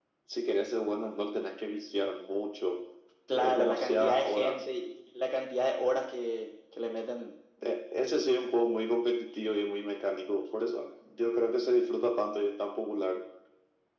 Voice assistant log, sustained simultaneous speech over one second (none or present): present